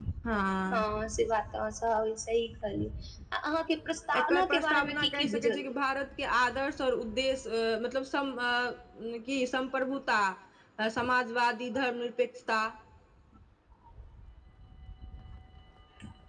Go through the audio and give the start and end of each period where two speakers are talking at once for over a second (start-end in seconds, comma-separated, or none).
4.2-5.7